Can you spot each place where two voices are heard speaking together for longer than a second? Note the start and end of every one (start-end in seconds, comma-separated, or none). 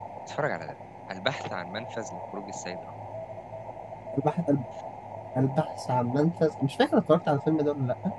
none